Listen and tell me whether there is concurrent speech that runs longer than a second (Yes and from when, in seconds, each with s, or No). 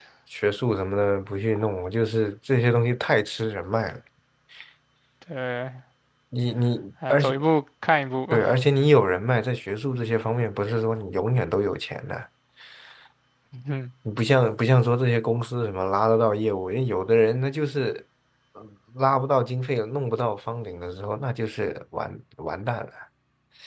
No